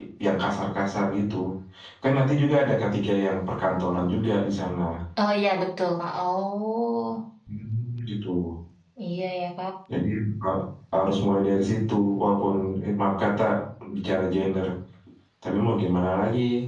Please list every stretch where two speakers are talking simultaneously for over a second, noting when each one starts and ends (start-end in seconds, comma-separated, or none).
none